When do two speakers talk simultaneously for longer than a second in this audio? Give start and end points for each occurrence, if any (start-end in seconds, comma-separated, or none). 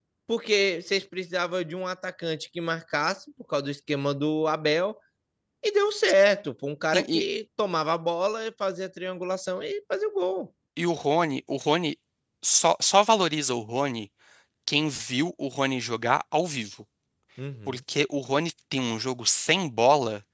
none